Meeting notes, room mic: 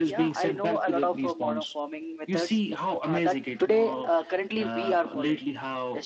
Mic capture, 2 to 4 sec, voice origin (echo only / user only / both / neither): both